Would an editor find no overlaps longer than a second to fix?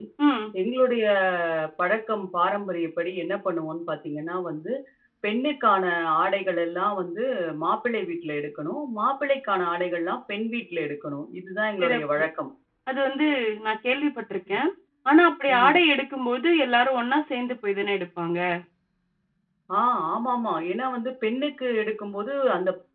Yes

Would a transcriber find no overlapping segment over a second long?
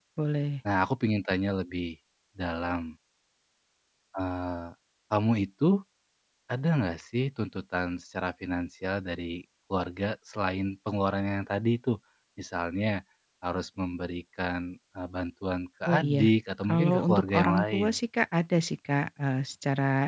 No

